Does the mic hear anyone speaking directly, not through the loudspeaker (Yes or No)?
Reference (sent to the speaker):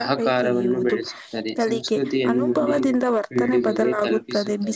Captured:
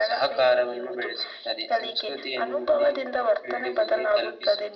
No